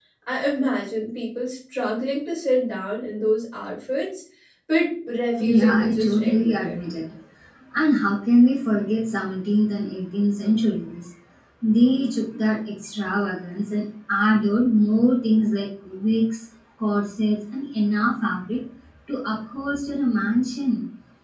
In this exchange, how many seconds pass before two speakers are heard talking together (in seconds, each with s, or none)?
5.4 s